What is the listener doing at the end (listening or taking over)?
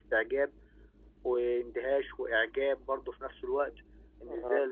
listening